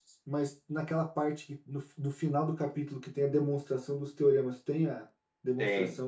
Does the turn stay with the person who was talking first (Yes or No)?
No